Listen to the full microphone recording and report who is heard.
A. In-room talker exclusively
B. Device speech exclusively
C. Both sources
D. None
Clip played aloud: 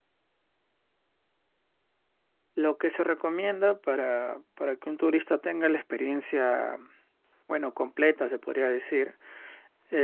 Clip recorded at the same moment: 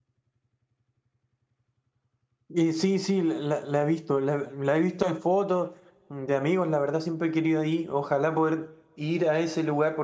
A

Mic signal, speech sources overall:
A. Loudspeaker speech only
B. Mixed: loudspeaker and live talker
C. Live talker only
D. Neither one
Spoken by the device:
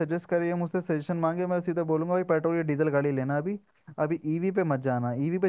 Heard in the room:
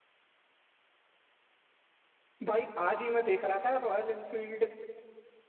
C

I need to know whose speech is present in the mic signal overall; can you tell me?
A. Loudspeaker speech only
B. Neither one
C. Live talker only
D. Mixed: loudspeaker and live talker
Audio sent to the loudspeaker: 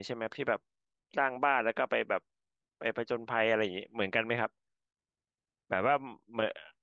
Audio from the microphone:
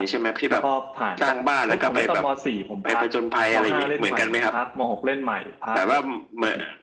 D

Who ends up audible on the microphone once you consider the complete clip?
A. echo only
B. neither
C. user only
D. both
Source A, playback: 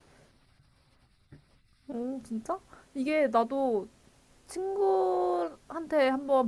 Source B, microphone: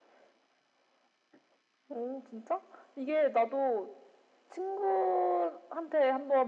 A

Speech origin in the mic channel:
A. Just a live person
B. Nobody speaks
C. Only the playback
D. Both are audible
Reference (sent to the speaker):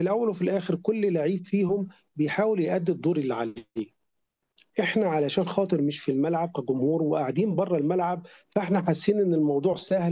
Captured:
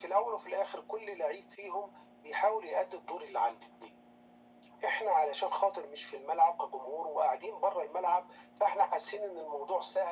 C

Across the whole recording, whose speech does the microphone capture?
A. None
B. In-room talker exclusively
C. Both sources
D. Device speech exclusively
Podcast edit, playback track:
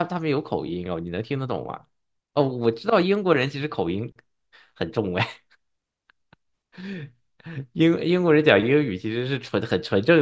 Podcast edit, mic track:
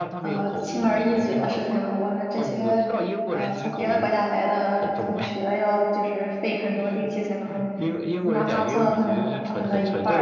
C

